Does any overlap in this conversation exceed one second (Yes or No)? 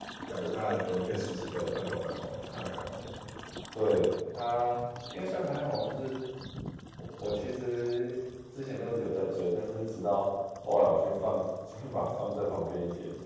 No